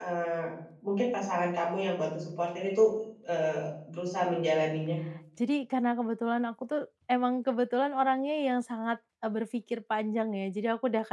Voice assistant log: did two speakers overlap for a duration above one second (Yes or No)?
No